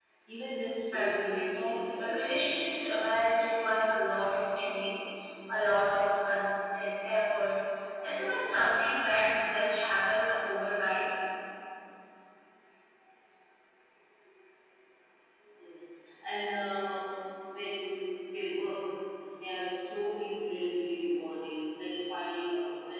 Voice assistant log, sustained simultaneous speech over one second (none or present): present